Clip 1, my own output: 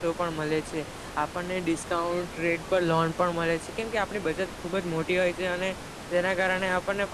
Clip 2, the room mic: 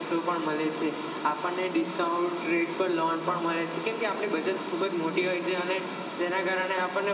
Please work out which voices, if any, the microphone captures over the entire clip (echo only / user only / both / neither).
echo only